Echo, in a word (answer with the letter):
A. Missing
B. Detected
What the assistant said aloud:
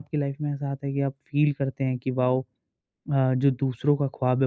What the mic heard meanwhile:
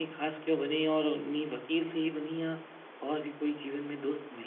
A